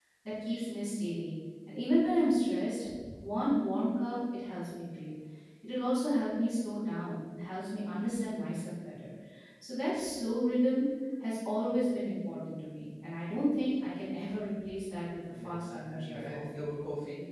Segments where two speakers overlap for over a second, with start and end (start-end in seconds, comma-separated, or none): 15.3-16.6